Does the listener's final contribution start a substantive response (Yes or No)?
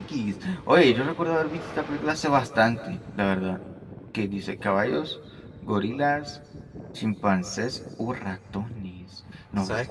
Yes